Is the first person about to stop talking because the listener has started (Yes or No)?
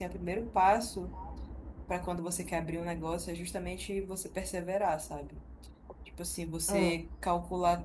No